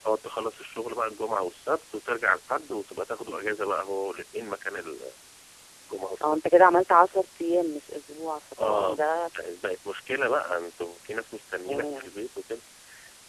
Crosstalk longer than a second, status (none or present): none